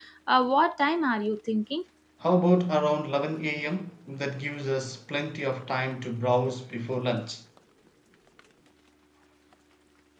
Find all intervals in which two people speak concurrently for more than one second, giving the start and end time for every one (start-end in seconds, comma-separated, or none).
none